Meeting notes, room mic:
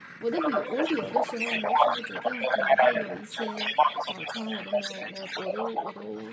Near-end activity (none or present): present